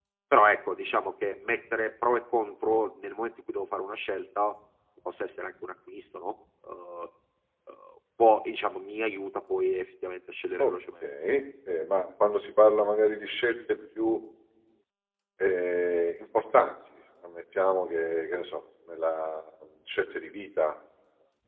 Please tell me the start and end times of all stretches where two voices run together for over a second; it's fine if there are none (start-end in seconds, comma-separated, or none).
none